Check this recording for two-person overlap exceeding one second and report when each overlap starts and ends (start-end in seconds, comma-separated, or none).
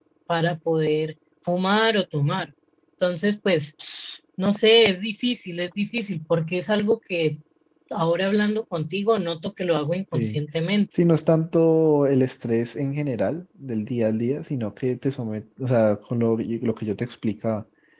none